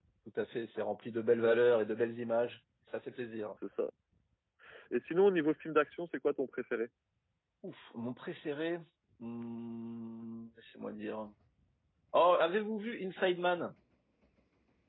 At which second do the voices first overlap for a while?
none

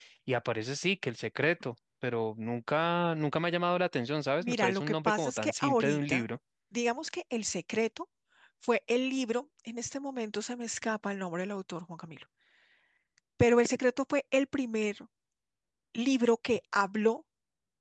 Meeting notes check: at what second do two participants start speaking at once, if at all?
4 s

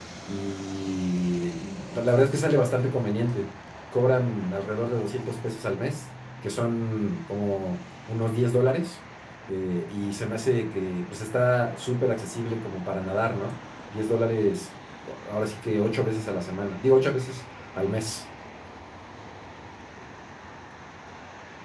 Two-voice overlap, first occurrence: none

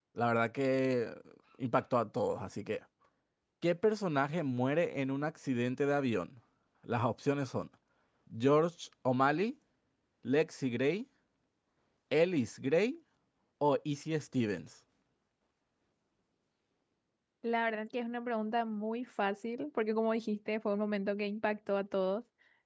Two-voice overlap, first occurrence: none

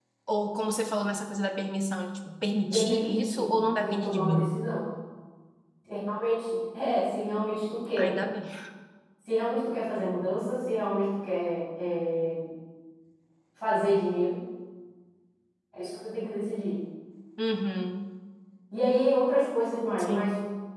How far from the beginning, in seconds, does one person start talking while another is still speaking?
3 s

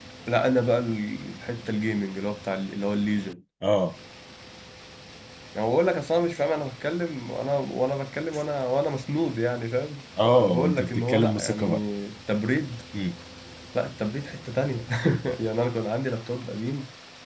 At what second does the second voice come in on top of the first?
10 s

